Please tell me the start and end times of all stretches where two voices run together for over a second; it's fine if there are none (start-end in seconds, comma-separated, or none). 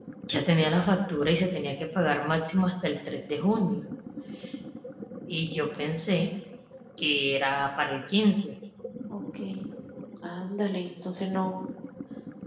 none